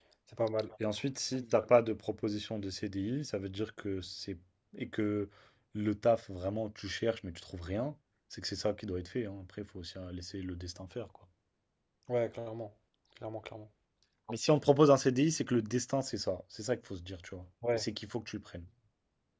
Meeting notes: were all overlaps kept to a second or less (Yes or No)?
Yes